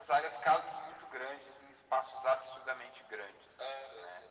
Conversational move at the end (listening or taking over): taking over